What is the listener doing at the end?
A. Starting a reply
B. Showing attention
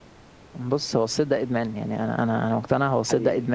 B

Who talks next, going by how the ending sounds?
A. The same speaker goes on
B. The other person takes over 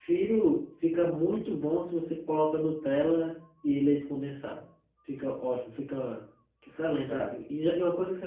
A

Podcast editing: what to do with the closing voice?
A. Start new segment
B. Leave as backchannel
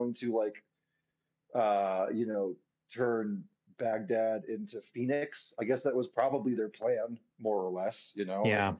B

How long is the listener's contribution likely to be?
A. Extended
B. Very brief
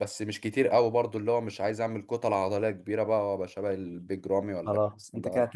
A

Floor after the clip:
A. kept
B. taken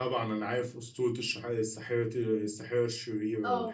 B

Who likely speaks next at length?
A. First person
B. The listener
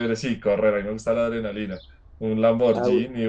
A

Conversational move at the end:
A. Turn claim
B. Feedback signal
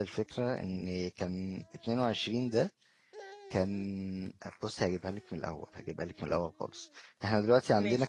B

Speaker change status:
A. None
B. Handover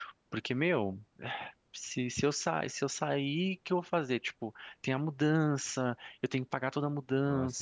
B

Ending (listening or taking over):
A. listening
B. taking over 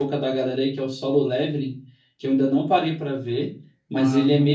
A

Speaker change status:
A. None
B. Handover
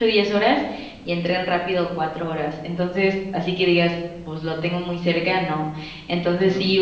A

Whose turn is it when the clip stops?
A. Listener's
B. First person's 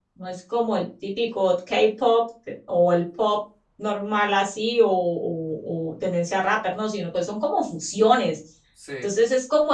B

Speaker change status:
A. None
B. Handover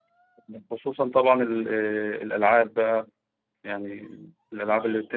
A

